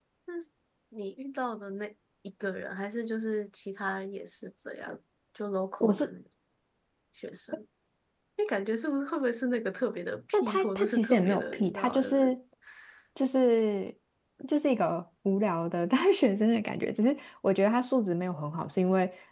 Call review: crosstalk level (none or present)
present